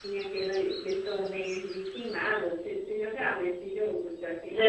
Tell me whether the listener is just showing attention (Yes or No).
No